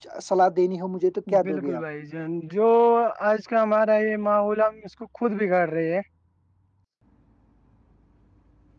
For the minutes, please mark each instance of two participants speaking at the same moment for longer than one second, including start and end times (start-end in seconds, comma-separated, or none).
none